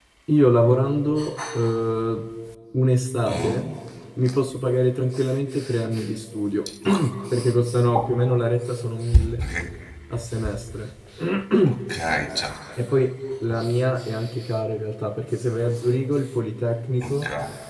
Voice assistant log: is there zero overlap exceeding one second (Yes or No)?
Yes